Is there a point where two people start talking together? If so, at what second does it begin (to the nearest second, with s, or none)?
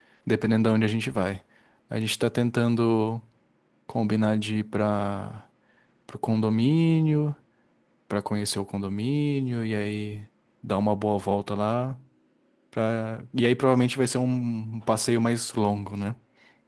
none